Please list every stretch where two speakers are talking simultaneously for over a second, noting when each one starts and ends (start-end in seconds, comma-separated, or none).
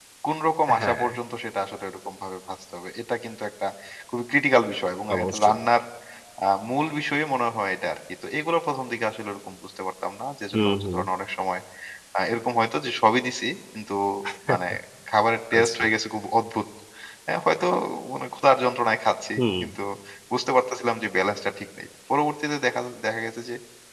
none